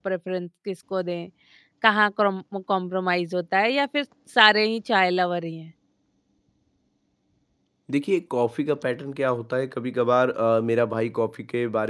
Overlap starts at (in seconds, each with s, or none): none